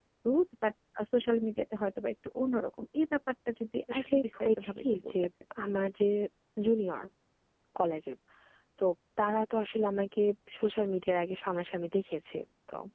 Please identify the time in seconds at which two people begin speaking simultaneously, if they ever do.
3.9 s

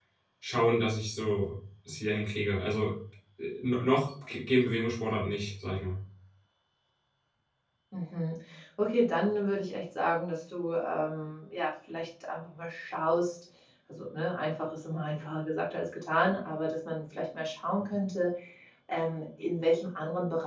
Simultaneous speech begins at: none

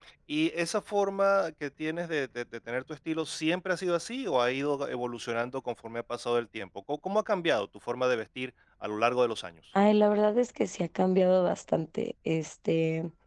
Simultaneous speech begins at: none

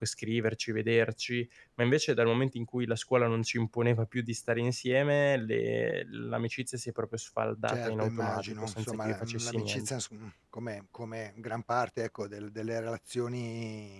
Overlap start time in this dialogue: 7.7 s

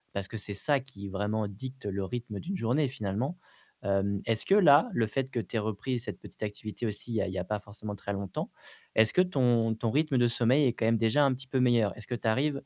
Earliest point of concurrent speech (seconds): none

